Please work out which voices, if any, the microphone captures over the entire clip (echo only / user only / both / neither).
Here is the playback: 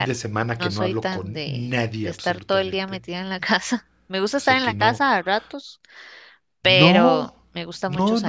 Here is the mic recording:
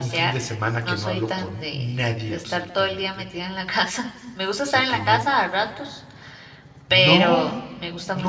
echo only